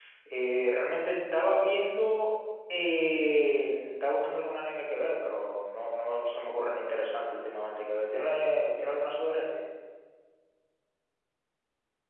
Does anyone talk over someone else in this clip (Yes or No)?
No